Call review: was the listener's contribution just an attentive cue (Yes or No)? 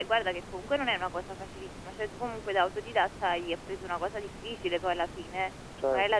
Yes